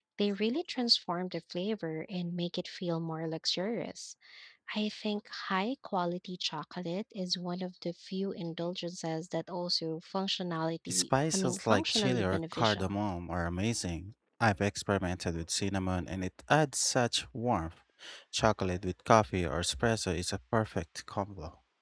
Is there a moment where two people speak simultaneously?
Yes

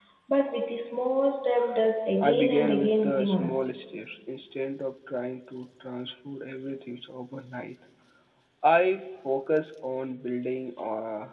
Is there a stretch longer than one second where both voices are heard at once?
Yes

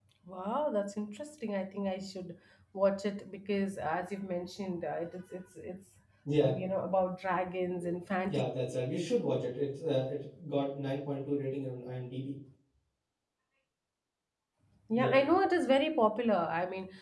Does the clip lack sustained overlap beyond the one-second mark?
Yes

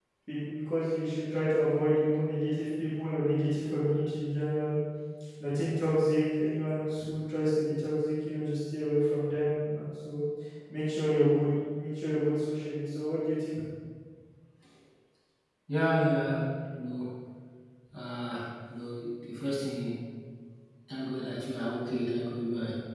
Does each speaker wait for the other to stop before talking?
Yes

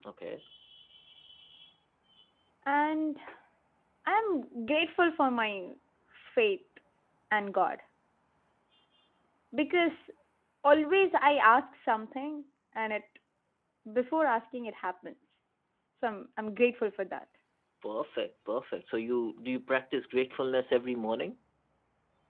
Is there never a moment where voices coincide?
Yes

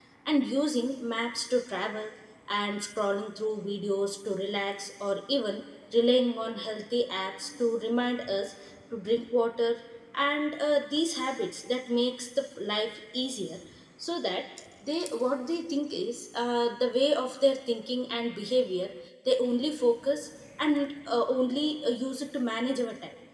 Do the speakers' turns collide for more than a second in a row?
No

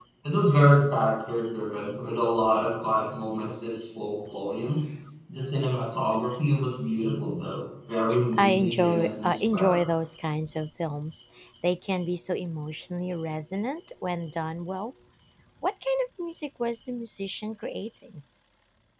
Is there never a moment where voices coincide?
No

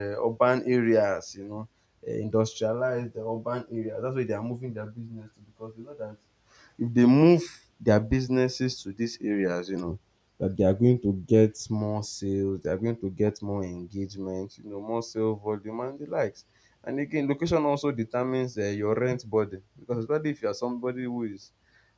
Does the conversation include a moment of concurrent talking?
No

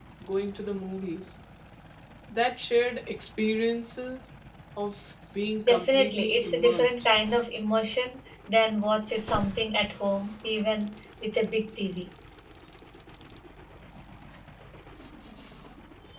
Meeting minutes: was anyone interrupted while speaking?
Yes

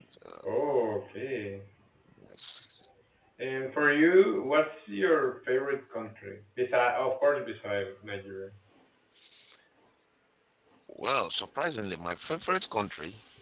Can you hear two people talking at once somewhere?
No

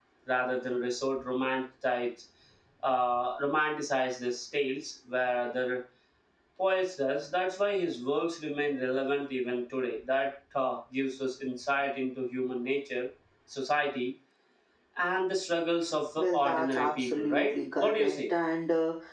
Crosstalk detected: Yes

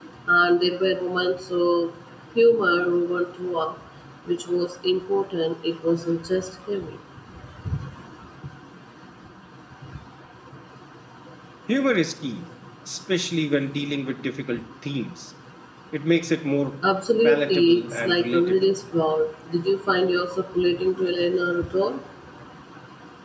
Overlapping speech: Yes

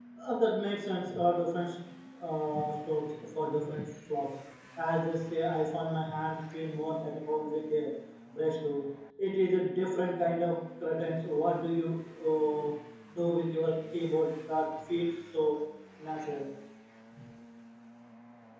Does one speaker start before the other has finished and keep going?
No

